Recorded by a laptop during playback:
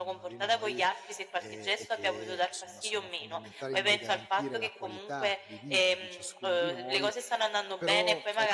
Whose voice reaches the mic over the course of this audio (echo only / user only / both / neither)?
both